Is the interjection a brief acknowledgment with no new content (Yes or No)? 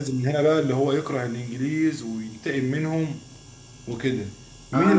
No